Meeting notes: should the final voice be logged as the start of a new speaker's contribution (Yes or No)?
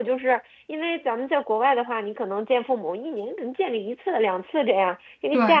No